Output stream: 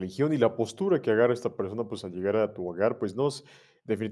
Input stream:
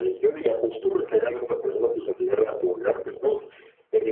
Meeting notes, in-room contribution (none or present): none